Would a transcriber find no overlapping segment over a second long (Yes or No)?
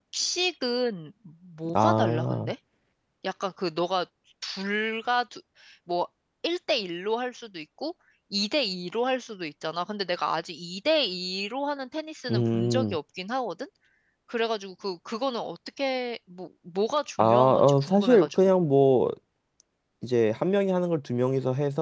No